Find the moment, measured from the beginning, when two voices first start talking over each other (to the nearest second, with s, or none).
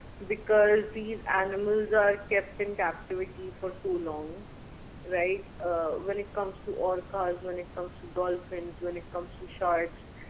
none